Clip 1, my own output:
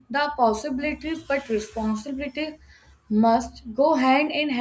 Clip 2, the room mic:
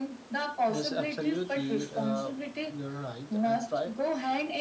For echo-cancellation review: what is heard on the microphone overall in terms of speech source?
both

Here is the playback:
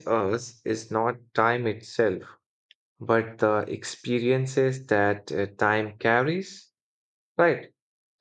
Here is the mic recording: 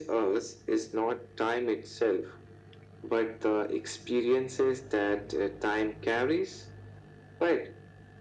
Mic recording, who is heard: echo only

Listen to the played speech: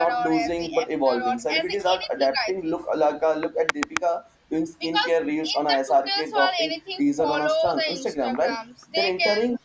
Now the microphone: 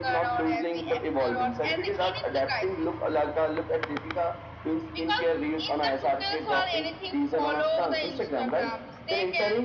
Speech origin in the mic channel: echo only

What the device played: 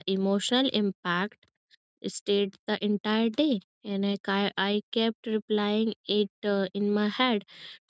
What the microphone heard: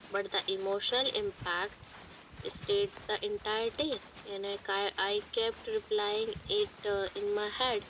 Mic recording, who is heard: echo only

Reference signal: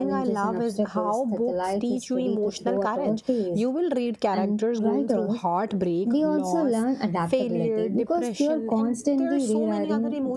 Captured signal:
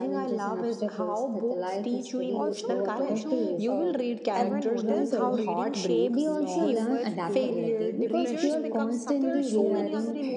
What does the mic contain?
both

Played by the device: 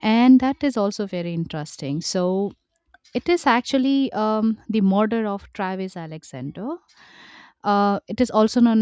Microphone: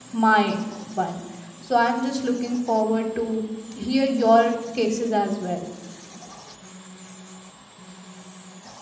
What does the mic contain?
user only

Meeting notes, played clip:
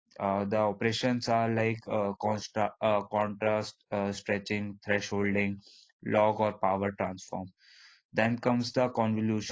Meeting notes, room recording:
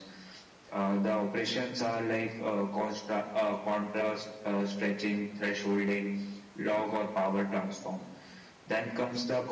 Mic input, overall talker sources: echo only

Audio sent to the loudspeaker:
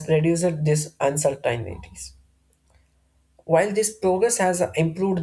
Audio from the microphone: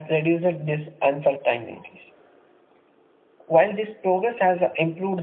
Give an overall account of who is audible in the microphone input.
echo only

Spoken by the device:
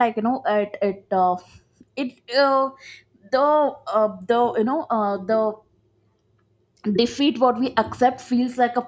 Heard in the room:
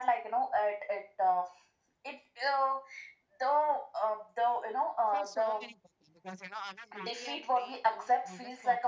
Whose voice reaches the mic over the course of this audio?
both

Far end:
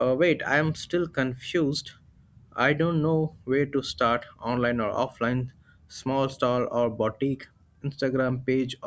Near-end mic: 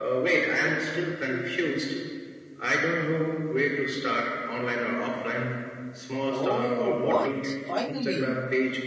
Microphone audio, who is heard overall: both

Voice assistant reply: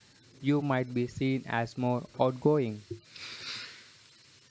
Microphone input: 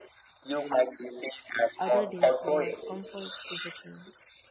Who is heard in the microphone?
both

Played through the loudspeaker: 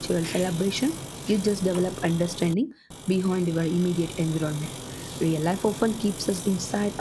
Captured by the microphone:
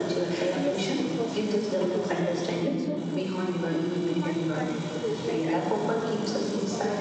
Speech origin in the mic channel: both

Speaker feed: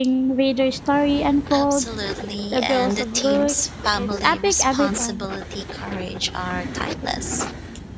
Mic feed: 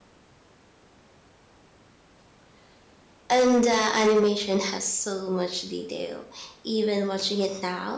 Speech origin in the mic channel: user only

